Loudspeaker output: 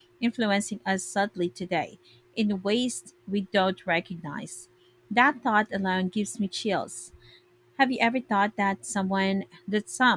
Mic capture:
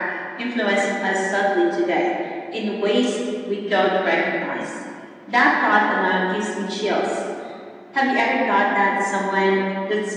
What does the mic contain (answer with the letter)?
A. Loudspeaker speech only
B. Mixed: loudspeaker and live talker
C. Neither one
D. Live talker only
A